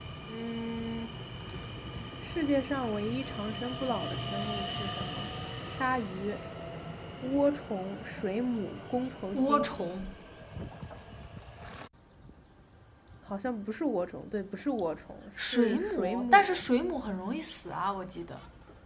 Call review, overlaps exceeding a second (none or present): present